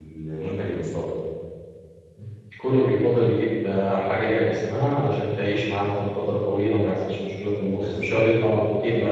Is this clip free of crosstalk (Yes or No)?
No